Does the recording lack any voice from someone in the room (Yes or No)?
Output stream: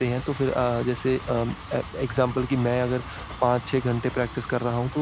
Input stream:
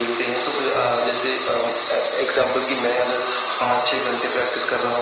Yes